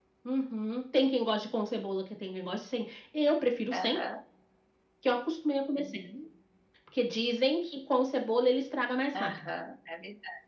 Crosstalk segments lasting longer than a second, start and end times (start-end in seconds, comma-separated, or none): none